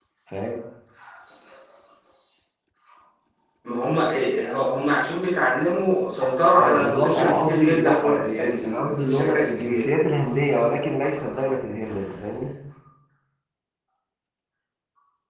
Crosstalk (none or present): present